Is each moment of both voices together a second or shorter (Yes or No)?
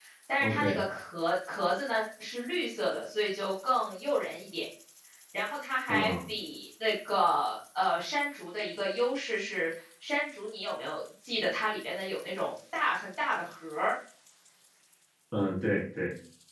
Yes